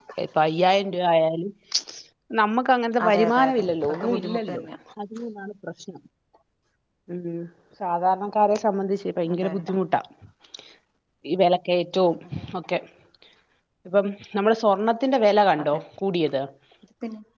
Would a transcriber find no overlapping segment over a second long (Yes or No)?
No